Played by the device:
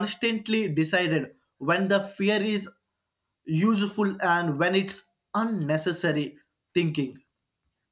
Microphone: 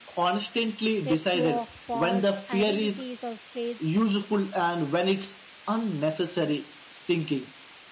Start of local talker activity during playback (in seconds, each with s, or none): 1.0 s